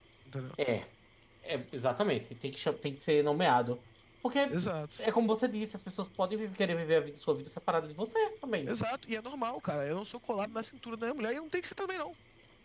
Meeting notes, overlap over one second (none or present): none